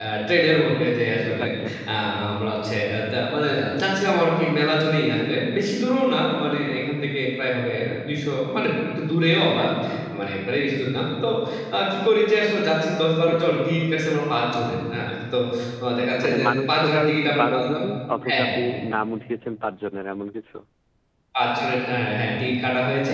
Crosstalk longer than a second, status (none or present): present